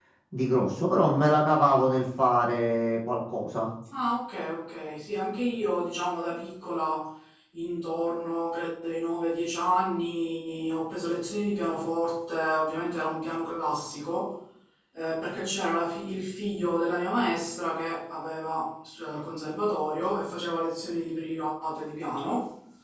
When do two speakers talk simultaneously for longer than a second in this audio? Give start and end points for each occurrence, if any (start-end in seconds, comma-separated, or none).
none